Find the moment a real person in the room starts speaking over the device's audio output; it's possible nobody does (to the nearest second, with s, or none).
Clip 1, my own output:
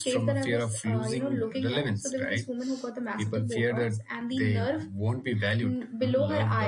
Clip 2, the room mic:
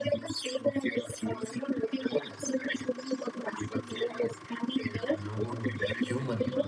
5 s